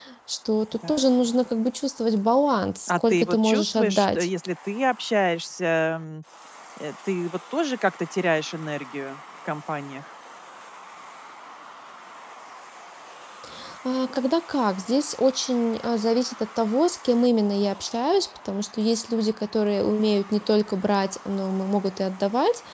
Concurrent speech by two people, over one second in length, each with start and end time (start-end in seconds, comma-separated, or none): 2.9-4.3